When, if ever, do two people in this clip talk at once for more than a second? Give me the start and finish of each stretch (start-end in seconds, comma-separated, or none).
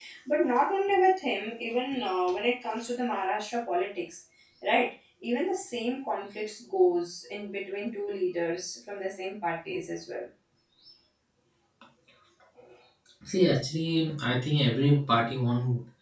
none